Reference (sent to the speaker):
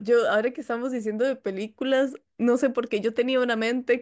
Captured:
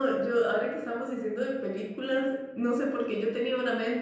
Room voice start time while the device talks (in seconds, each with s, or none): none